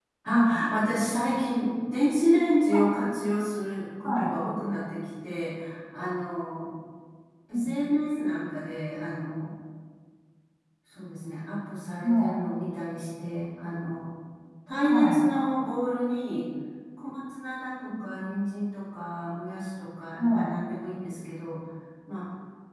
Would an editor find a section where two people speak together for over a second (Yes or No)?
No